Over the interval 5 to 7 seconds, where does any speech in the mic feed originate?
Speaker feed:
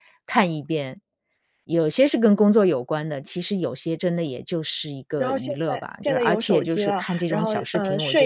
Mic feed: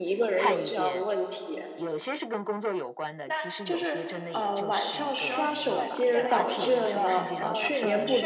both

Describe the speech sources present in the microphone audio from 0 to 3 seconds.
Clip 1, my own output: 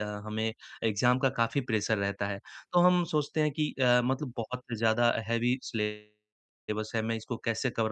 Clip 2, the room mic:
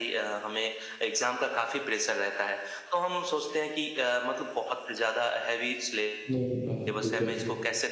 echo only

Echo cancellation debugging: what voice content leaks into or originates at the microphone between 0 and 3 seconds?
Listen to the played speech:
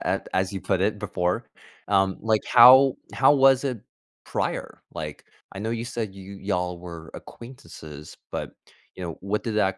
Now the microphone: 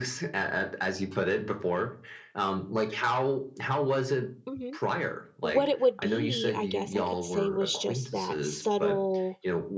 echo only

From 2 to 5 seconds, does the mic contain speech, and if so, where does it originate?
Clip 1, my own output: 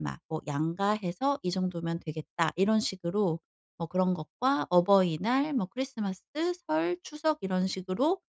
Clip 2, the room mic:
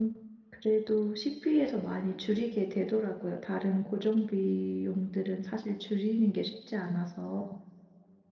user only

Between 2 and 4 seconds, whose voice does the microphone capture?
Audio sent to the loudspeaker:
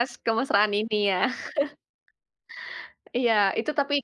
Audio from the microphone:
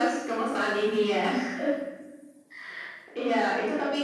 echo only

